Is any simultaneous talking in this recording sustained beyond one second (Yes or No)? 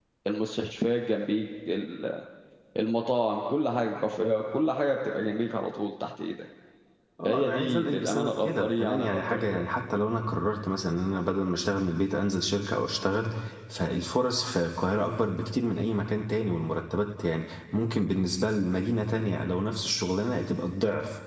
Yes